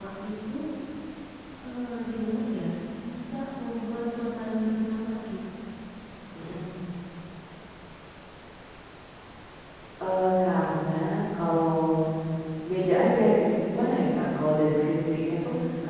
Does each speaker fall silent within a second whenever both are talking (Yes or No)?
Yes